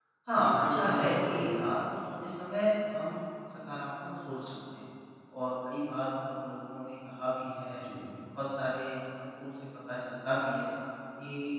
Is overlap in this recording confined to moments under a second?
No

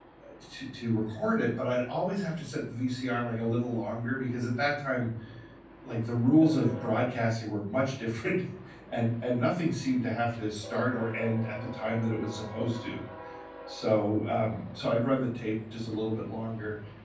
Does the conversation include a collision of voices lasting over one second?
No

